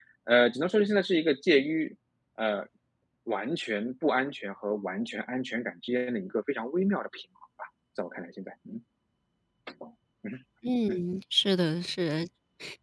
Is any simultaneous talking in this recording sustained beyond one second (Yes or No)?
No